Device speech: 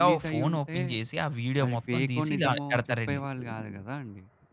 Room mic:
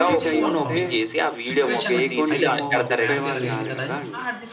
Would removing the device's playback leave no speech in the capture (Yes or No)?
No